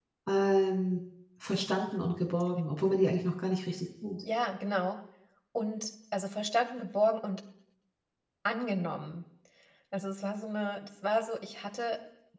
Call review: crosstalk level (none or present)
none